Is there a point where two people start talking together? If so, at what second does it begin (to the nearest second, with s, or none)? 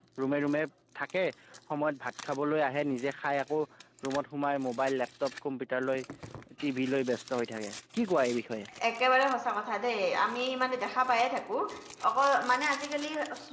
none